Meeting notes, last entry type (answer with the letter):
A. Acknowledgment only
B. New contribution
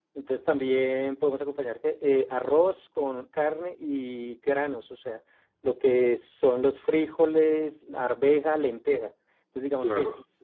A